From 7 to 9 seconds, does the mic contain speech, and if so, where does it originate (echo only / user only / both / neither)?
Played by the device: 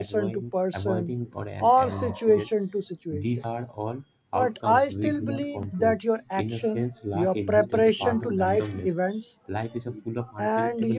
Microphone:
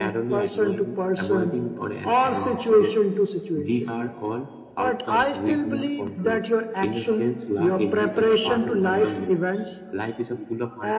echo only